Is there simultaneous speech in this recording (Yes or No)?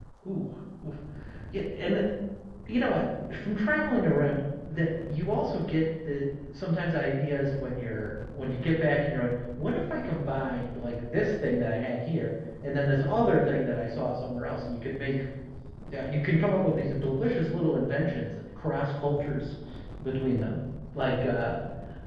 No